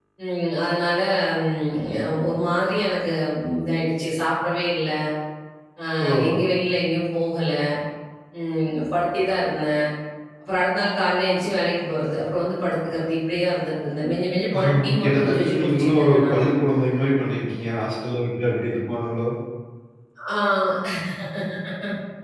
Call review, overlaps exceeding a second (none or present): present